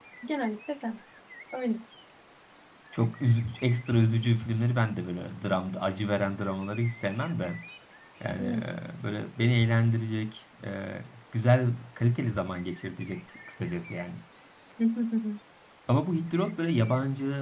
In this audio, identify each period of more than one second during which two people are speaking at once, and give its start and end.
none

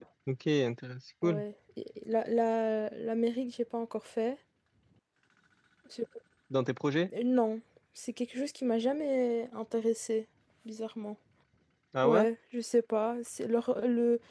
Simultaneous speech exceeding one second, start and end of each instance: none

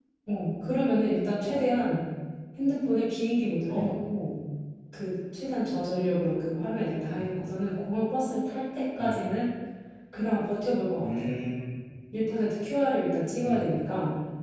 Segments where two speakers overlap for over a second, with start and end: none

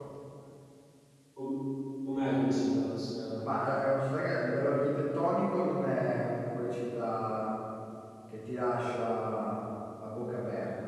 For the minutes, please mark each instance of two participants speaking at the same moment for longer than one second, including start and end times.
none

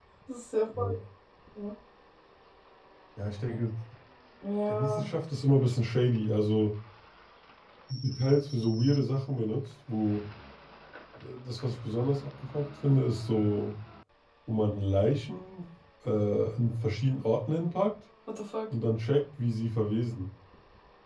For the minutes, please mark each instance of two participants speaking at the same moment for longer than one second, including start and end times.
none

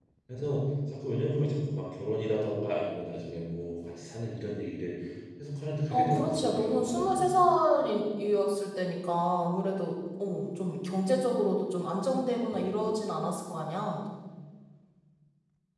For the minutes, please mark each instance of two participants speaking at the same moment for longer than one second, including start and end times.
5.9-7.3

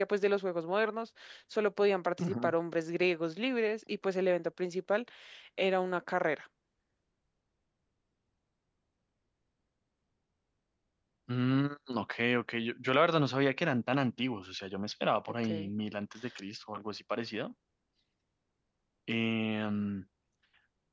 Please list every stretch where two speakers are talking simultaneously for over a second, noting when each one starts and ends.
none

